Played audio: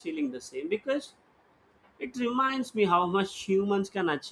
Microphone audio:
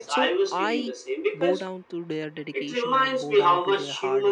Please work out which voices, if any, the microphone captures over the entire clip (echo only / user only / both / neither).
both